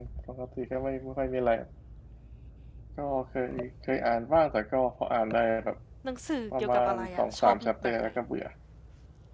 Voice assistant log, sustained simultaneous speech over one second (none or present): present